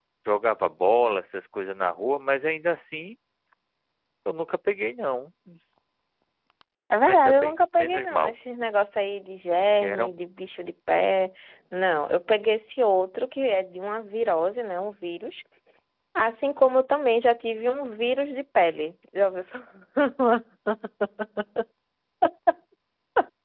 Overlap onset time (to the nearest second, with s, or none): 7 s